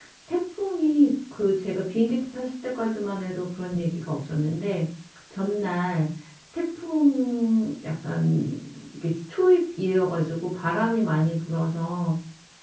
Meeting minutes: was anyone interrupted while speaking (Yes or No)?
No